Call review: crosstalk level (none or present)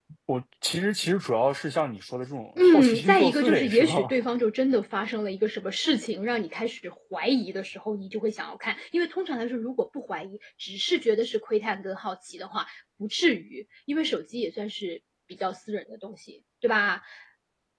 present